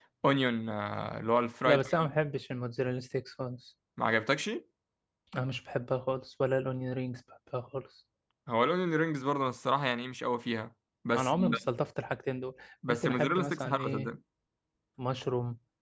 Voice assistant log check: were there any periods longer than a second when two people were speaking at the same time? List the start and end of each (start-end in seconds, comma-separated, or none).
12.9-14.1